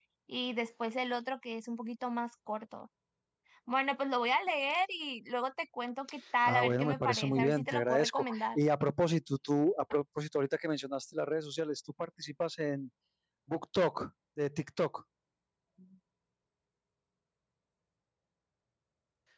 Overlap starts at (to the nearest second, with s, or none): 6 s